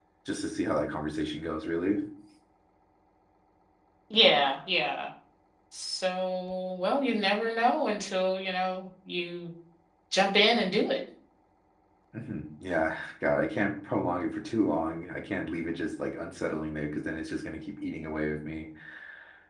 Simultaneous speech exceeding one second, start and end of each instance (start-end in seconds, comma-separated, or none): none